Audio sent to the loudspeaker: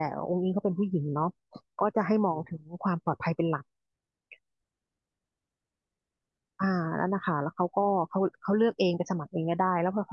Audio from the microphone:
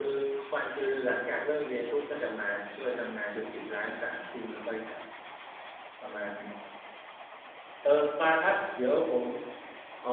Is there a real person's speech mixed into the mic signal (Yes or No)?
Yes